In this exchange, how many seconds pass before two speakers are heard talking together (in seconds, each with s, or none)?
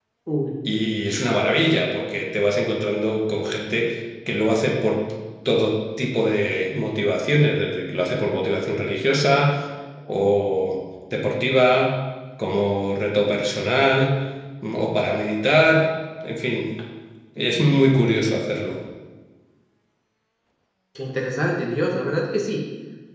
none